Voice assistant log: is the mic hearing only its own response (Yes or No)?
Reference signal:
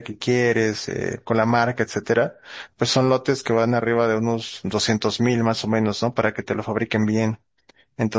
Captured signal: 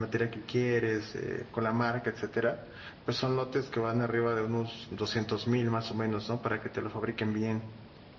Yes